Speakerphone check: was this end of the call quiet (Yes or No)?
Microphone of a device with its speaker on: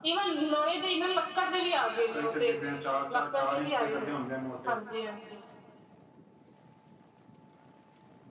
No